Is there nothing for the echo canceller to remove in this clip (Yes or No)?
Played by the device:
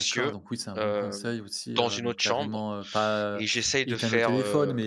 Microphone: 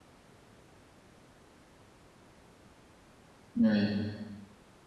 Yes